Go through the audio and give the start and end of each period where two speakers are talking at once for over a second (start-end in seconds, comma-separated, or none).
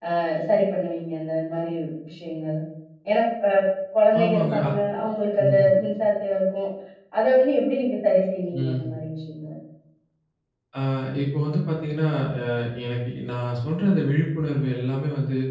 none